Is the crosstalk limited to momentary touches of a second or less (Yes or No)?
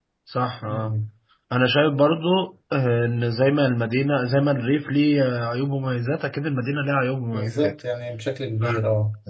Yes